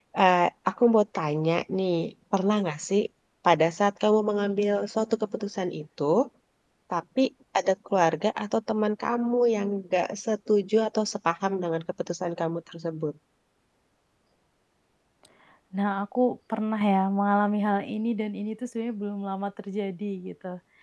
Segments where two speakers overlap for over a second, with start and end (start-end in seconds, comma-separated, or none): none